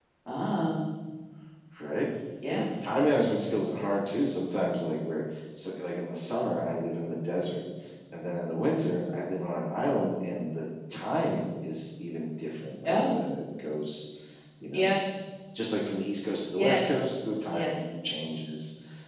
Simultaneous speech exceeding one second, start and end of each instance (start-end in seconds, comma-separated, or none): none